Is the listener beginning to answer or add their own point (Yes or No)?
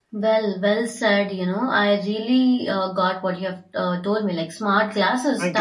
No